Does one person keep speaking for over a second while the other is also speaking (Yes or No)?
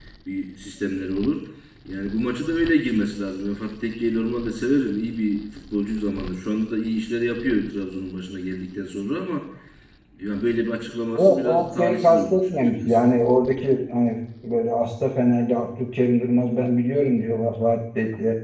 Yes